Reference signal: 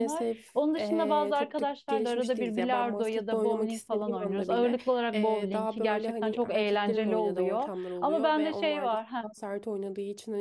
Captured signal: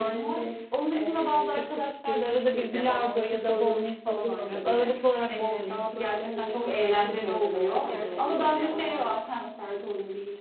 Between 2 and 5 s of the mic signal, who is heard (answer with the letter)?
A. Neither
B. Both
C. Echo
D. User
C